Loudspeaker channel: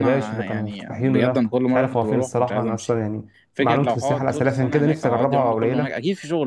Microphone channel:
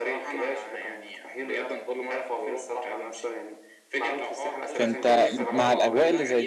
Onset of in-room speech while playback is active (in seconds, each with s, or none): 4.7 s